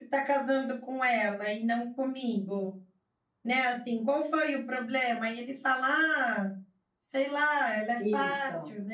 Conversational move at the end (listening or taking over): listening